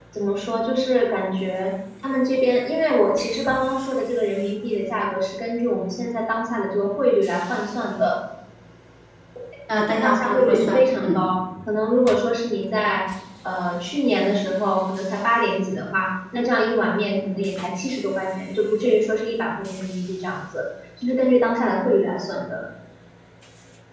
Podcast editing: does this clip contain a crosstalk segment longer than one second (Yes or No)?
Yes